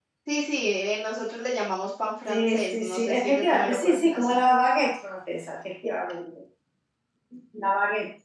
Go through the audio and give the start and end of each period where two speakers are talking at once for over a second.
2.3-4.4

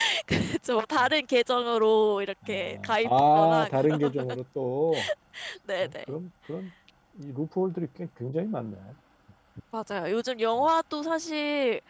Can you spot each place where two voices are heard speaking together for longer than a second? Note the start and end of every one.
2.5-4.2

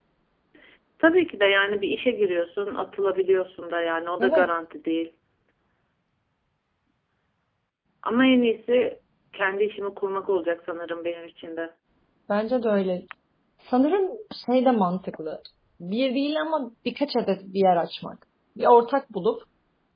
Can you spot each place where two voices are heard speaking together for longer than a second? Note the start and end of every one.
none

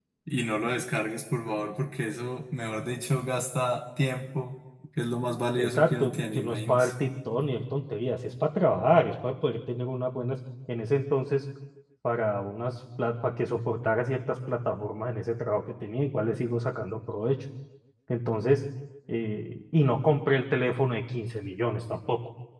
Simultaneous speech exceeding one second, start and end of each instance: 5.6-6.9

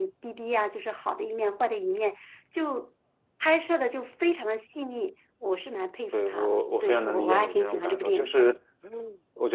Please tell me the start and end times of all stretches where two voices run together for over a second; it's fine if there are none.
6.1-8.3

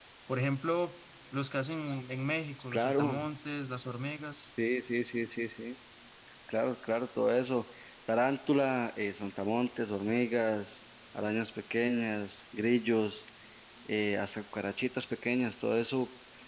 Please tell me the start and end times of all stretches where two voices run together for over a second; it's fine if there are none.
none

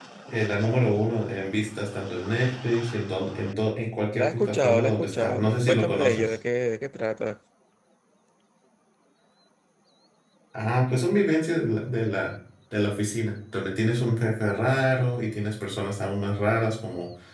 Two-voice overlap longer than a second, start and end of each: 4.1-6.3

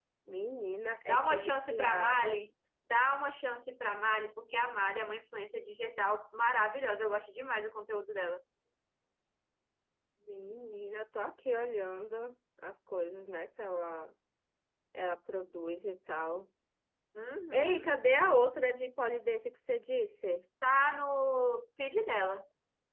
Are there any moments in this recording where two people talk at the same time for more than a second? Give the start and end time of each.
1.1-2.4

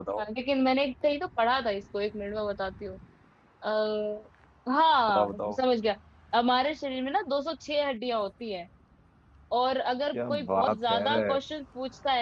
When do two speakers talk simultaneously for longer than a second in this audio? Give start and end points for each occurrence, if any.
10.1-11.4

